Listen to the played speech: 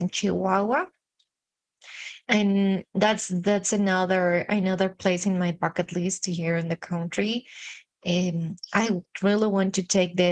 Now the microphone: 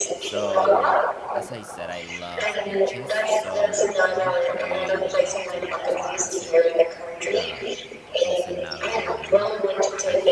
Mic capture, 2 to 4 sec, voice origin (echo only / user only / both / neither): both